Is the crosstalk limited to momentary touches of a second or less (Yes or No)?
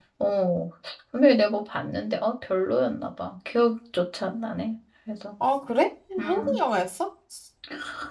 Yes